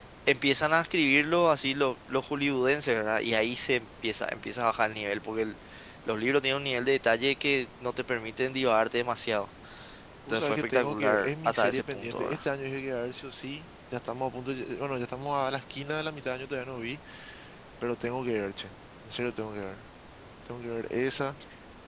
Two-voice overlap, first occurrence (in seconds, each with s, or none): 10.3 s